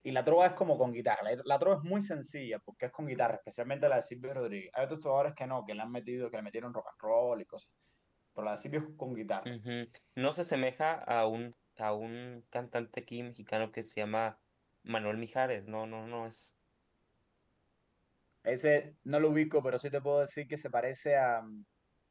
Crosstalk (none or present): none